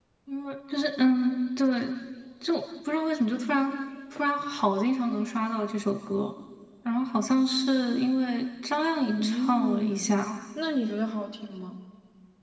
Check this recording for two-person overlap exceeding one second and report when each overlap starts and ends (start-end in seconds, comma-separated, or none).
9.1-10.3